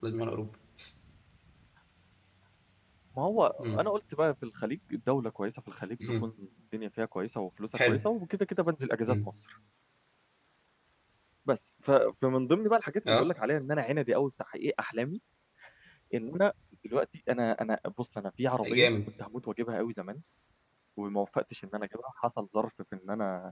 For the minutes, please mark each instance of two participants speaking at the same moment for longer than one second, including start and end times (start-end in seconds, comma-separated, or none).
none